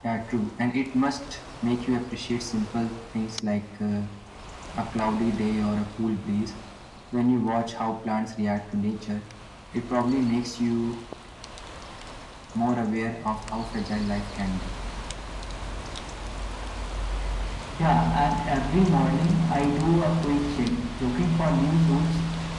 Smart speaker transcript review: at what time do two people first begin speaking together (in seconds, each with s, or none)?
none